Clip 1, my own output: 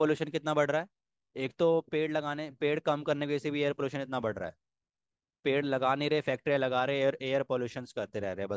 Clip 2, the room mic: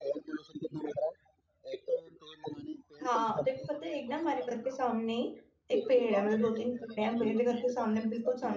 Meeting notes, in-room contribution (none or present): present